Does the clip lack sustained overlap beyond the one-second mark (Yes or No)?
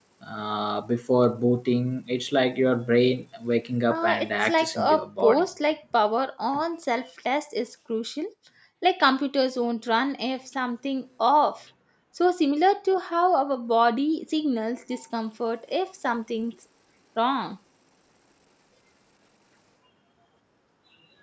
No